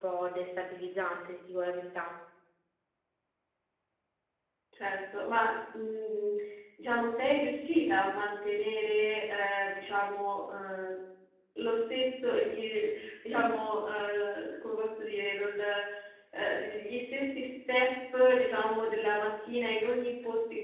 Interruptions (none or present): none